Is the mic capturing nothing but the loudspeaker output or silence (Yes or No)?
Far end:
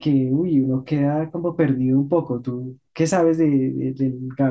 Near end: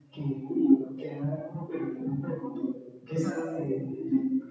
Yes